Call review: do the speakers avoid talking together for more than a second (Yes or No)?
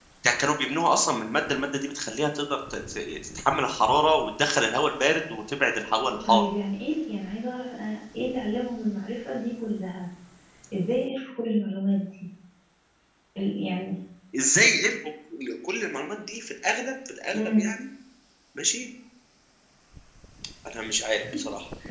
Yes